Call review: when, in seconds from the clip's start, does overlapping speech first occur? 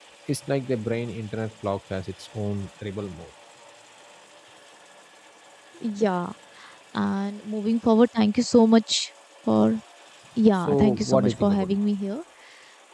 10.5 s

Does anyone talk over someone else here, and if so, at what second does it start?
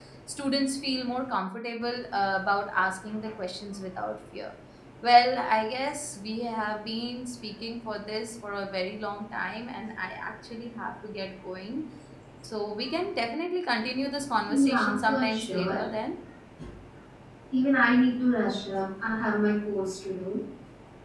14.5 s

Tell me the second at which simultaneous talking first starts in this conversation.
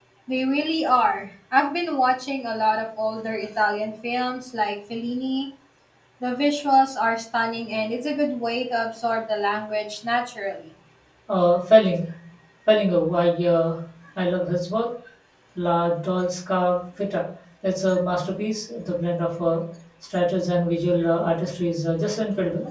none

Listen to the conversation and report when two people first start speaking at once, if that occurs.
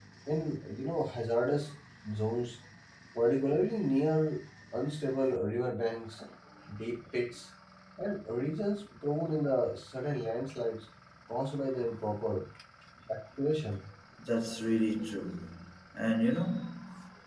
none

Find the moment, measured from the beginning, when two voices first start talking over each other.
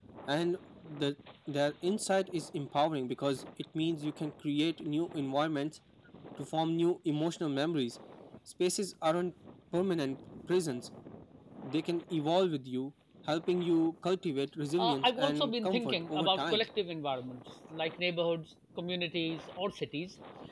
14.8 s

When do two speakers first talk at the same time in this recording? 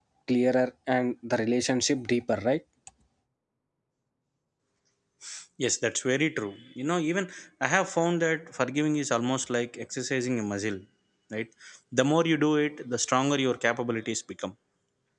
none

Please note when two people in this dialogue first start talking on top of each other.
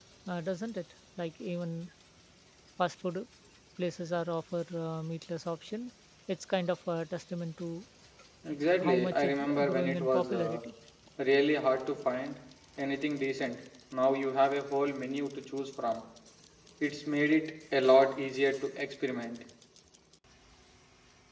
8.8 s

